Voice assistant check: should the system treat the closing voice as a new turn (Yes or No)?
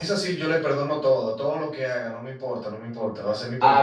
No